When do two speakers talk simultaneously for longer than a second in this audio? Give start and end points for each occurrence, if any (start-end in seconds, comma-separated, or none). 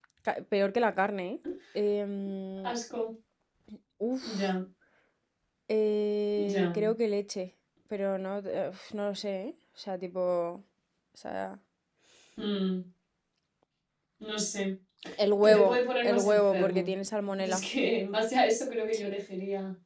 15.4-16.9